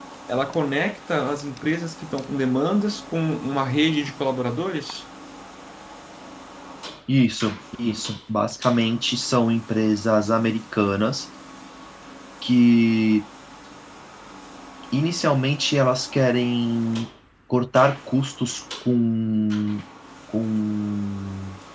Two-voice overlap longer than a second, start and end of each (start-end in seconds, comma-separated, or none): none